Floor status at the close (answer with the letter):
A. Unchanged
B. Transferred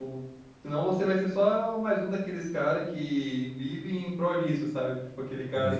A